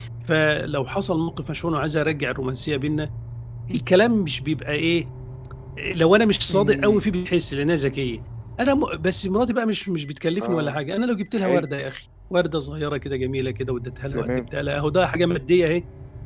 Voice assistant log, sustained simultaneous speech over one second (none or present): none